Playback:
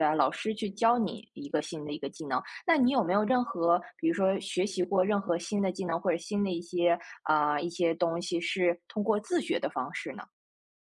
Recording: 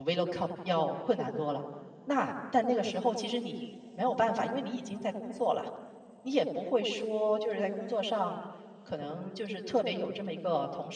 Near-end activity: present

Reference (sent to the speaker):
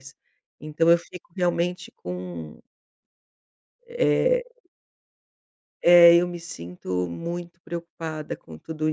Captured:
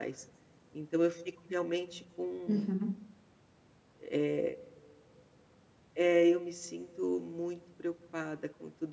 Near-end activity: present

